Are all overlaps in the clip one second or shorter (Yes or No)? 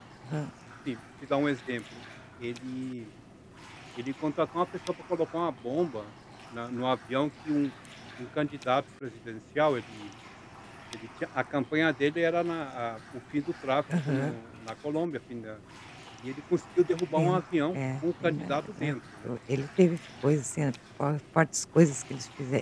No